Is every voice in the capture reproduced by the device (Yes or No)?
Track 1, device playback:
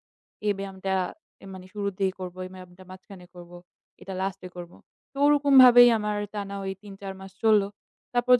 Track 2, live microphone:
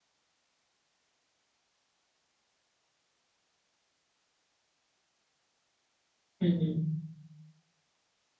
No